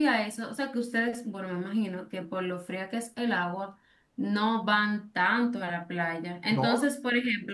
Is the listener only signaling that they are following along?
Yes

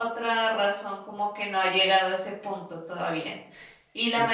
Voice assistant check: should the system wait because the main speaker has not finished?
Yes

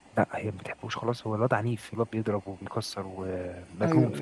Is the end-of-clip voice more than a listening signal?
Yes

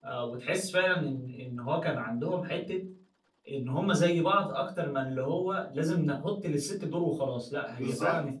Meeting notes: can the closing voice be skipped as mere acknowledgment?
No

